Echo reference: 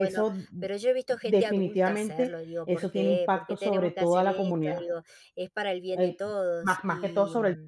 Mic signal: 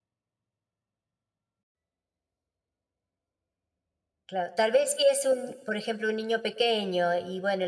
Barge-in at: 4.2 s

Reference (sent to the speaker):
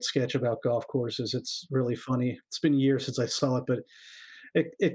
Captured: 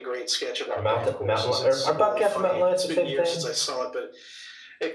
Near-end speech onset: 0.7 s

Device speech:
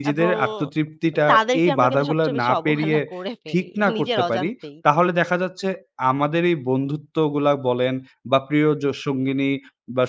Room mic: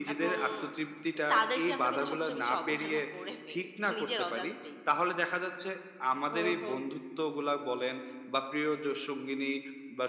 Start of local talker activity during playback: 6.3 s

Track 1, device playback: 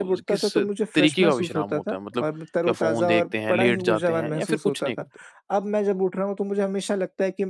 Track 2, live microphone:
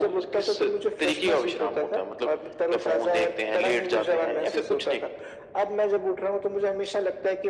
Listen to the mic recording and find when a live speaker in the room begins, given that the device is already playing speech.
none

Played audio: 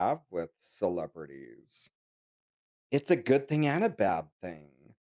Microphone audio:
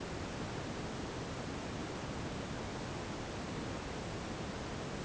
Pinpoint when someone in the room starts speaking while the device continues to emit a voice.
none

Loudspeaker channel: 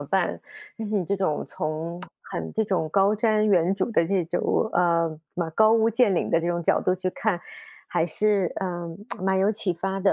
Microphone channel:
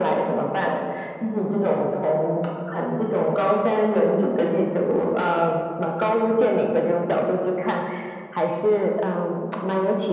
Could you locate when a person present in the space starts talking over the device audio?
none

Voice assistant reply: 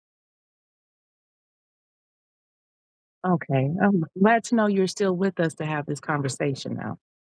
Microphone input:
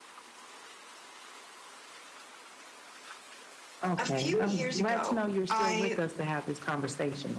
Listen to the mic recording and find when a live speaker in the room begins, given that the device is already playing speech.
4.0 s

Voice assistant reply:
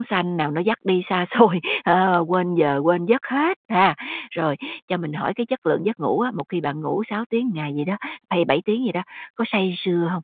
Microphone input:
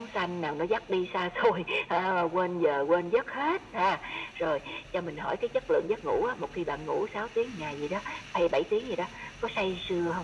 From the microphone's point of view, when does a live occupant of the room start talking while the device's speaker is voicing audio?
none

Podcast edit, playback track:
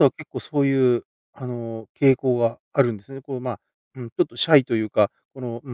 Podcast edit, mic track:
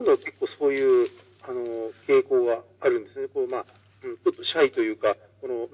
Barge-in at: none

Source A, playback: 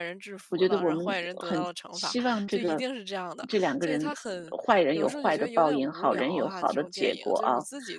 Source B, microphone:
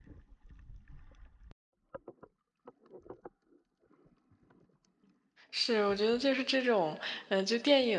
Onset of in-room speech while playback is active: 5.5 s

